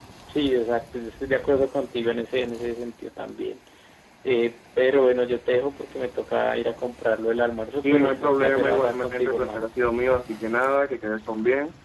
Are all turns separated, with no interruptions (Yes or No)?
No